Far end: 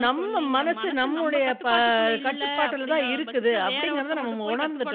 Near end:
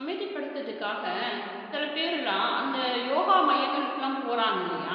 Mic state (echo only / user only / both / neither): user only